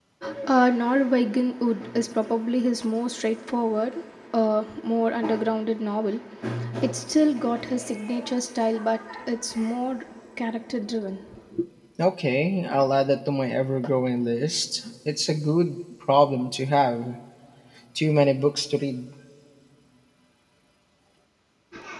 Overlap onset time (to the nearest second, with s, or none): none